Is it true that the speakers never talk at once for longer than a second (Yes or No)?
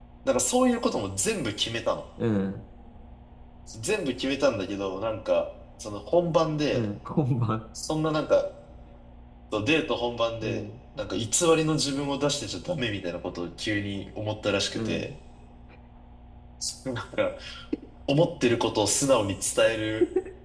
Yes